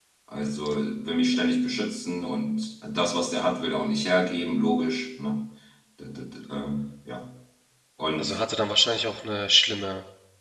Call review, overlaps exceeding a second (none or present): none